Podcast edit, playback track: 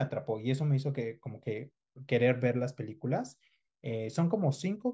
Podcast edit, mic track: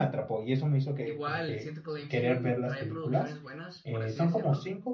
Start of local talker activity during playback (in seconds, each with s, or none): 1.0 s